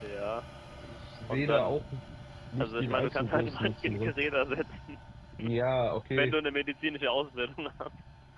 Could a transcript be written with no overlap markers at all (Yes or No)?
No